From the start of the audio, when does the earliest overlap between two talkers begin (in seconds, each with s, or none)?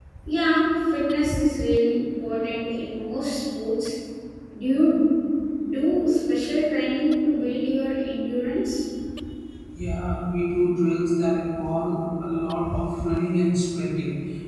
none